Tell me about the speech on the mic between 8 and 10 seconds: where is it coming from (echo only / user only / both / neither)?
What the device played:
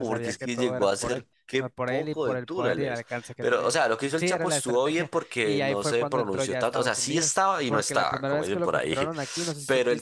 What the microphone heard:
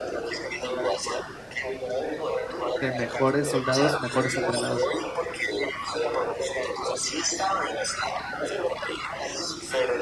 echo only